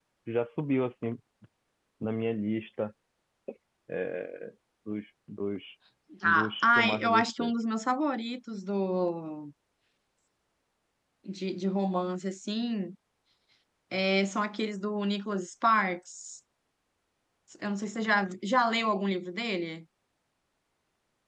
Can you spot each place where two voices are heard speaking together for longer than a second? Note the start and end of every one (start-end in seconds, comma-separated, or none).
6.2-7.5